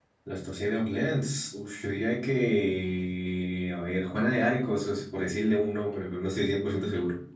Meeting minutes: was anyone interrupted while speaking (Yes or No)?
No